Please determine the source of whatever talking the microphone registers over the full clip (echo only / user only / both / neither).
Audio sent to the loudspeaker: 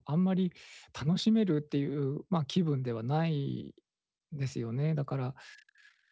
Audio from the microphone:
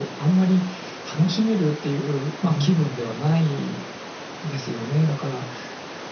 both